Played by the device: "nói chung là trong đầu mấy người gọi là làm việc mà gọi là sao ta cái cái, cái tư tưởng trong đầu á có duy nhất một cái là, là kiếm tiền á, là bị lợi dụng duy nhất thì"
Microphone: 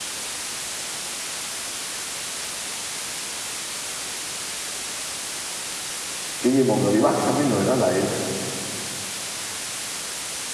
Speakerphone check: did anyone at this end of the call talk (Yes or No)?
Yes